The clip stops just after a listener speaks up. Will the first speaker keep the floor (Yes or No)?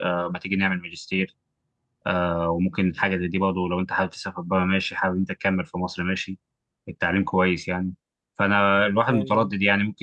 Yes